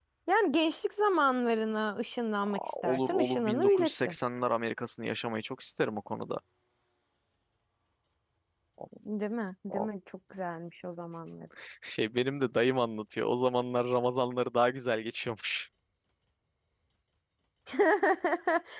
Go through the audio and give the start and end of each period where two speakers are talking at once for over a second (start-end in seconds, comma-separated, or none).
2.4-4.2